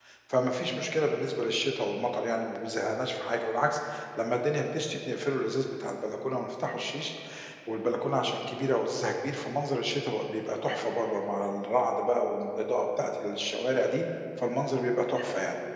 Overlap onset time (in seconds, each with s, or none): none